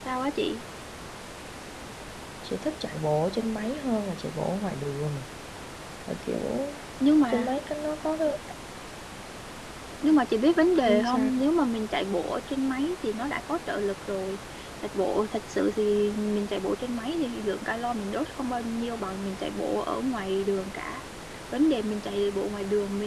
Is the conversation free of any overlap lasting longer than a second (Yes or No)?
Yes